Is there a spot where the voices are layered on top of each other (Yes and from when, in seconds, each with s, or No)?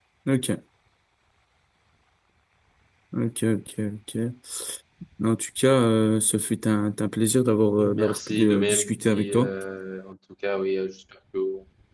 Yes, from 7.8 s